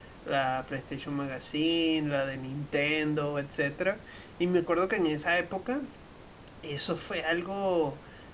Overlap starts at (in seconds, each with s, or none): none